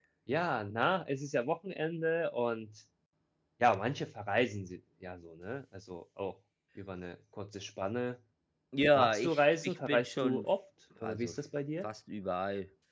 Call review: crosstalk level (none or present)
present